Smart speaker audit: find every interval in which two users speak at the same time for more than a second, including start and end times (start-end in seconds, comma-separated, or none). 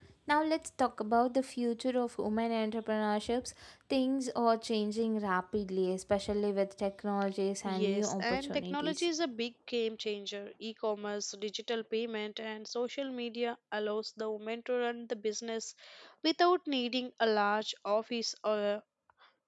7.8-9.1